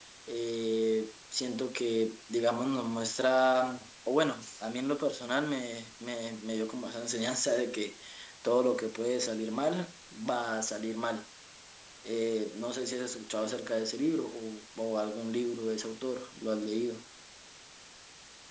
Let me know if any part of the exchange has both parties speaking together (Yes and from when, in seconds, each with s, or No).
No